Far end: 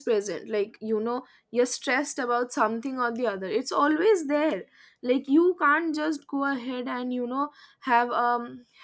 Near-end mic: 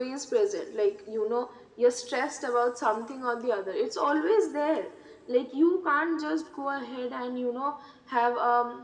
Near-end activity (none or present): none